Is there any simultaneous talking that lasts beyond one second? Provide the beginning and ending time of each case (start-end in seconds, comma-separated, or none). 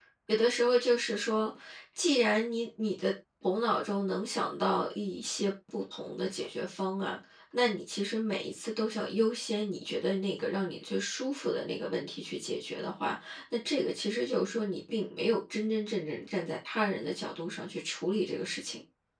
none